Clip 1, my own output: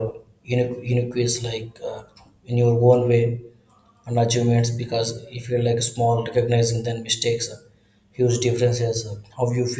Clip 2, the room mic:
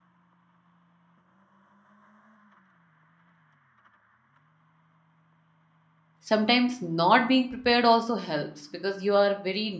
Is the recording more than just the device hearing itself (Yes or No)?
Yes